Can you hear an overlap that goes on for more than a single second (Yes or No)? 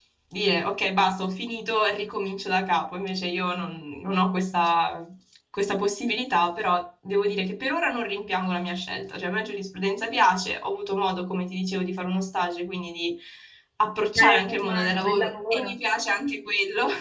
Yes